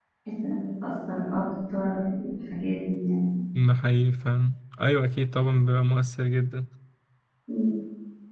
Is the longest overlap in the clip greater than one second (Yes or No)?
No